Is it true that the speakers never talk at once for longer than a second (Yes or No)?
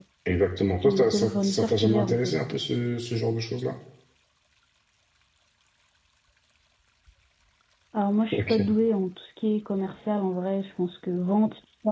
No